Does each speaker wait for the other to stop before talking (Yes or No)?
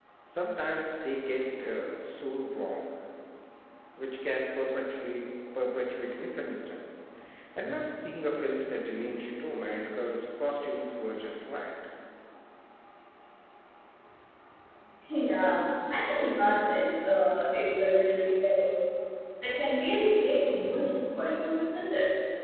Yes